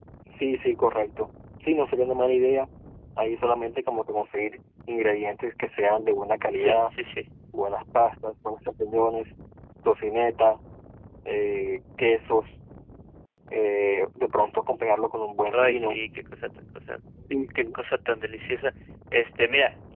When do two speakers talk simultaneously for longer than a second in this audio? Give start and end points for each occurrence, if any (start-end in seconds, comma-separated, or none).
none